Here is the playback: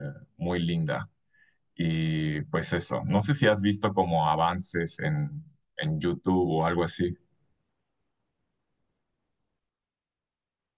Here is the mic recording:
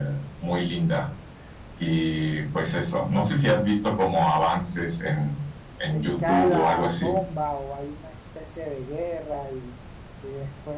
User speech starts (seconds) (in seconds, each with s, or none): 5.8 s